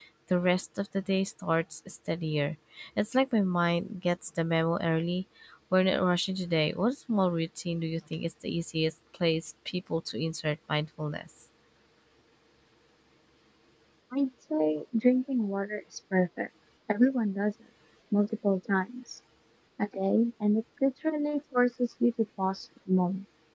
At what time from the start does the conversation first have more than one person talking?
none

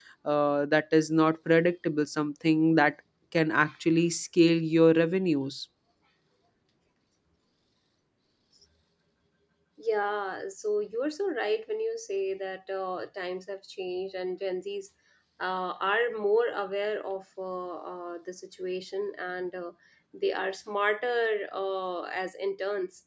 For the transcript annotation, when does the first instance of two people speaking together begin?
none

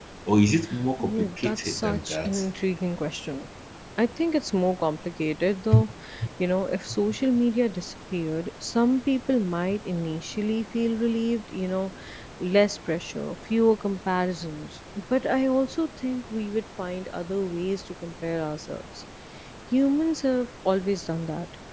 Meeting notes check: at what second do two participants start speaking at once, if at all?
1.0 s

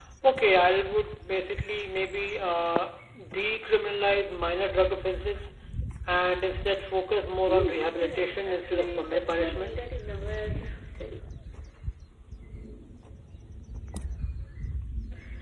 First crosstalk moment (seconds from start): 7.5 s

